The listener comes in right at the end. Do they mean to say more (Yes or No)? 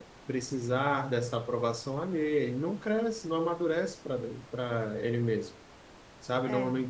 No